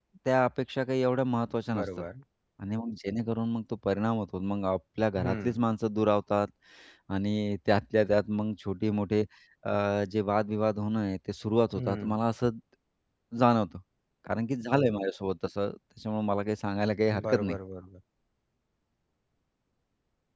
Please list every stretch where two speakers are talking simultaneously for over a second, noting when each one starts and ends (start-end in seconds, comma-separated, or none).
none